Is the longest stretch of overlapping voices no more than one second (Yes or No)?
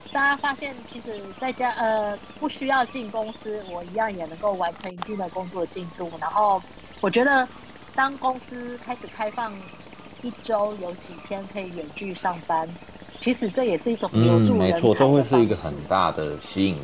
No